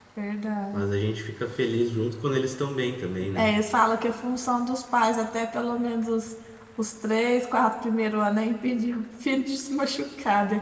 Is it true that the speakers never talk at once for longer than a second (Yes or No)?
Yes